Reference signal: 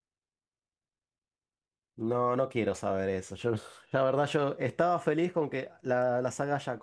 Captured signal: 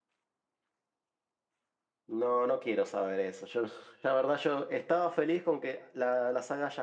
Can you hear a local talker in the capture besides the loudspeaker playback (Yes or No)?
No